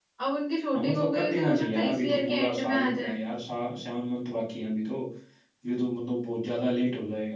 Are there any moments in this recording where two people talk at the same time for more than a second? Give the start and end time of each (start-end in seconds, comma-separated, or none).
0.7-3.2